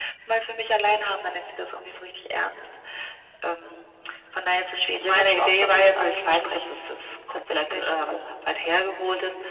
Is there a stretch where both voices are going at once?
Yes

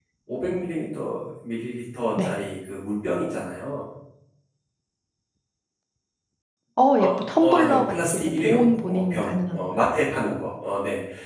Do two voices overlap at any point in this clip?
Yes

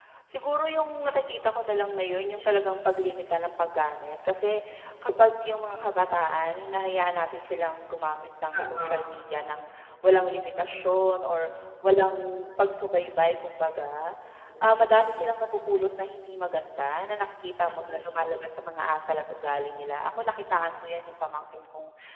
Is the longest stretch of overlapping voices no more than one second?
Yes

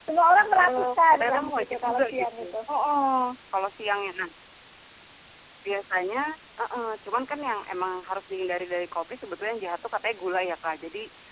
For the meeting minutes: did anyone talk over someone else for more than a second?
Yes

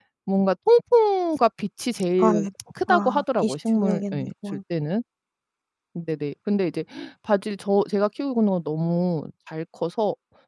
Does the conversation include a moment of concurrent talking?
Yes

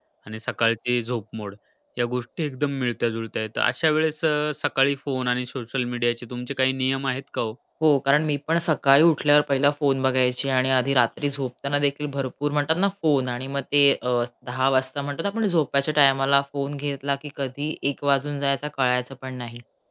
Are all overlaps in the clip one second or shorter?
Yes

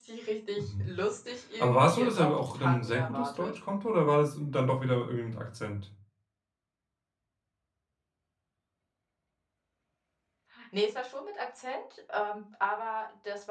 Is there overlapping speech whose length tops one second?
Yes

